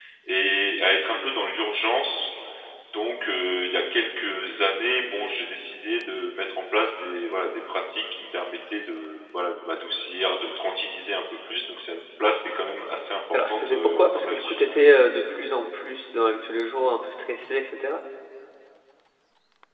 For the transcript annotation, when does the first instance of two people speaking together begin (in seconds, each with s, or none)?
13.3 s